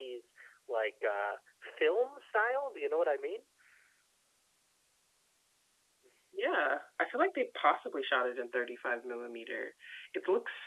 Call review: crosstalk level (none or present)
none